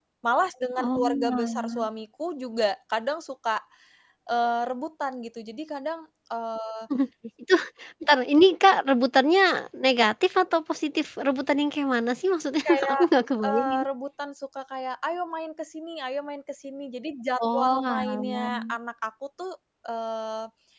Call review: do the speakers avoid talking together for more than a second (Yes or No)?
No